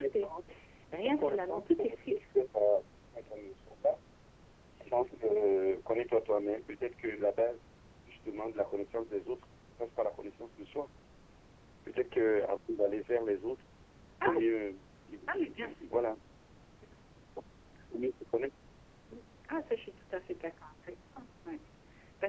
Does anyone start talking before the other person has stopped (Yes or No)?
Yes